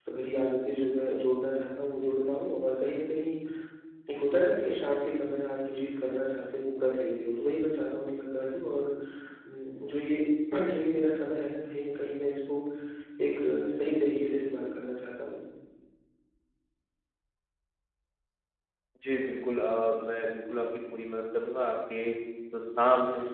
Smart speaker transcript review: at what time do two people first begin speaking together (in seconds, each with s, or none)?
none